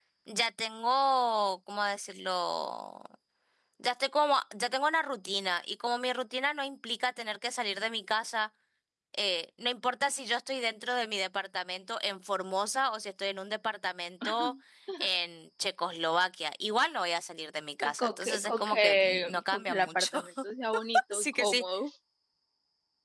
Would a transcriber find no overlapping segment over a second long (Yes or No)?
No